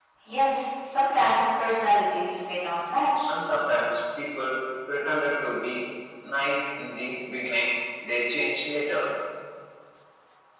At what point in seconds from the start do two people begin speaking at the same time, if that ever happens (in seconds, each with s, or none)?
none